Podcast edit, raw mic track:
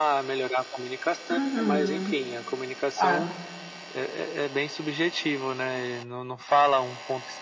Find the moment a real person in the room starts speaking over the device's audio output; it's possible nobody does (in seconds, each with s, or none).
1.3 s